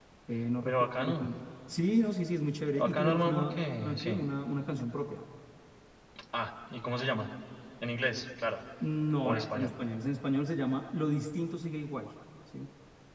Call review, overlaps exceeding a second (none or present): present